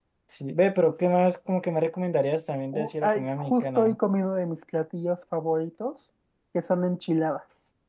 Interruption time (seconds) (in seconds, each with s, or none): 2.7 s